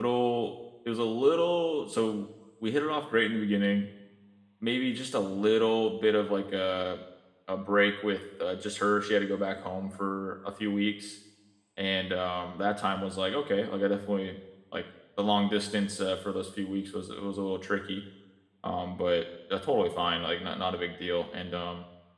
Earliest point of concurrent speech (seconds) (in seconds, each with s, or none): none